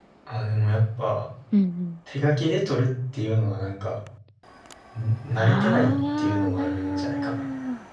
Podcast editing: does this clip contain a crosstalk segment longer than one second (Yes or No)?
Yes